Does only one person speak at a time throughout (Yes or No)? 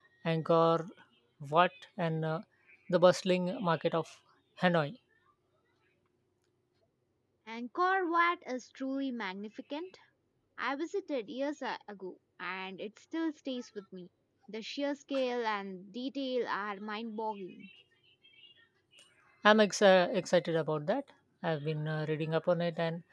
Yes